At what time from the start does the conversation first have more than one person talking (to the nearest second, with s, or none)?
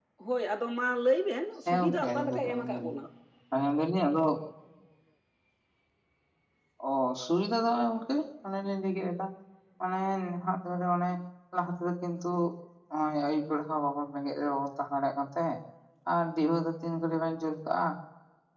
2 s